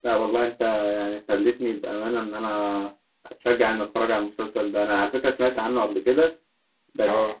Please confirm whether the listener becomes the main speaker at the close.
No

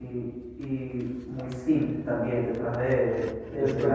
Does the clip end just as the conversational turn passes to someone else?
Yes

